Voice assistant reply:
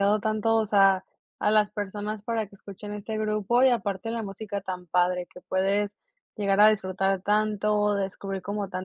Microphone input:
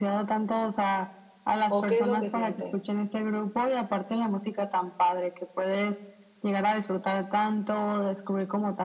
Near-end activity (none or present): present